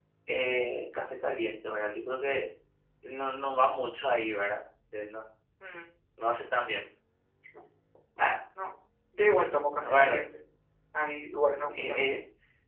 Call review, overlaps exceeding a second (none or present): none